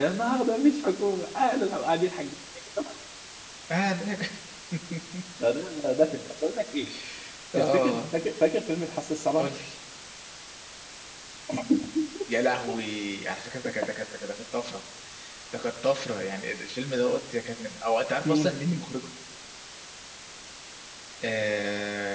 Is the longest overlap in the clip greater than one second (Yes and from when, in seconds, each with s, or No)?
No